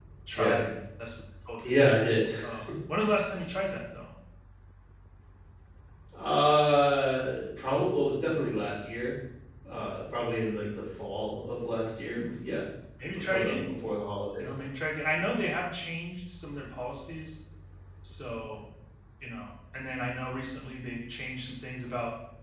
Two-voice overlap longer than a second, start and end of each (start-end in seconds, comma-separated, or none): none